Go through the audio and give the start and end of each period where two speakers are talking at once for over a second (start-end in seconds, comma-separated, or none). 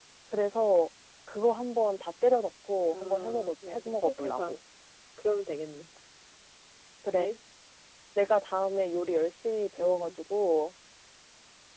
2.9-4.5